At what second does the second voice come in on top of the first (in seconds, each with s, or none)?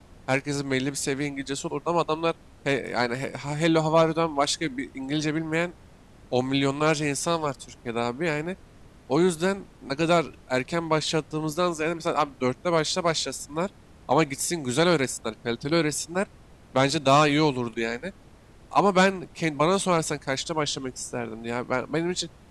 none